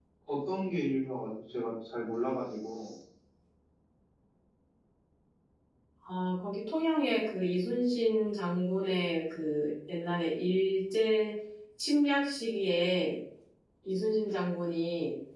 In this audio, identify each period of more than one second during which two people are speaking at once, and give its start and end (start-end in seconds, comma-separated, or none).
none